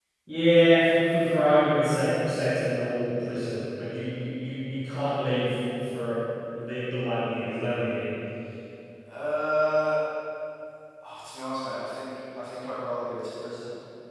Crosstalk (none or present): none